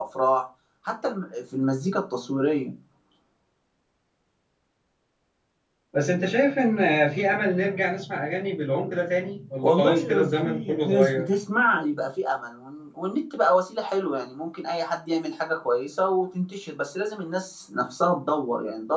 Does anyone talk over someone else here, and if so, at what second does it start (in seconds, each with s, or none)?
9.6 s